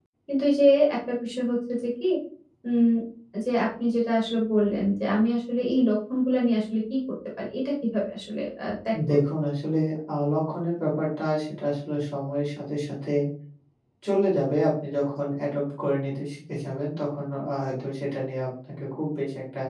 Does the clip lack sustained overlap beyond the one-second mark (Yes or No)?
Yes